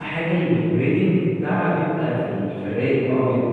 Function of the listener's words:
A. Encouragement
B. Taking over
B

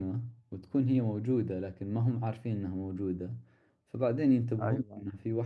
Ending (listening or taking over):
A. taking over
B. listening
B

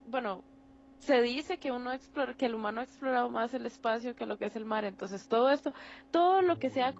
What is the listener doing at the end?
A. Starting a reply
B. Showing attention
B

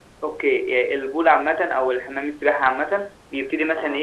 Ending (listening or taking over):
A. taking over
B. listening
B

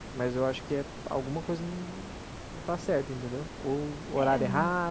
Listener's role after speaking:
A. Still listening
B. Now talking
A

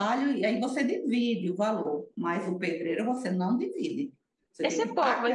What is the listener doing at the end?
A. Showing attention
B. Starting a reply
B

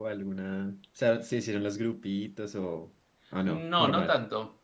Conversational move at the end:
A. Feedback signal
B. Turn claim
B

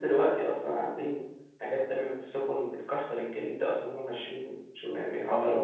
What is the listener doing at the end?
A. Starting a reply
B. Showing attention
A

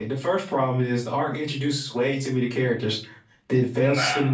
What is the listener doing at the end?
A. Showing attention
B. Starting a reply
A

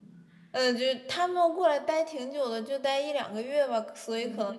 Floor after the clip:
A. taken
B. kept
B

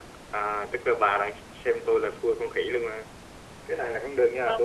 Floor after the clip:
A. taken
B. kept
B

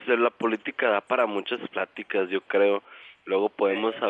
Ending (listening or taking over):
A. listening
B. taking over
A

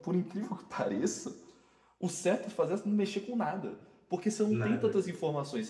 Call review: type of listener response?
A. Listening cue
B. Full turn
A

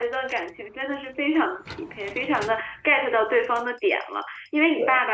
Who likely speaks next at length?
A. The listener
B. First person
B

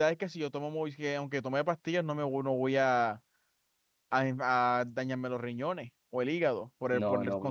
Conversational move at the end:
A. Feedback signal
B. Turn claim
B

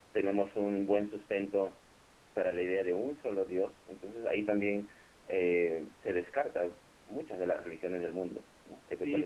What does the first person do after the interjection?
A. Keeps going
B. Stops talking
B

